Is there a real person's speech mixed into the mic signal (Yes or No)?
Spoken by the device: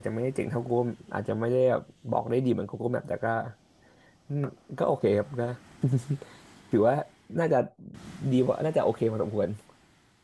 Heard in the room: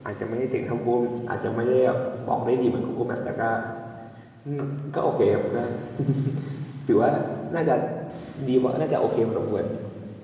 No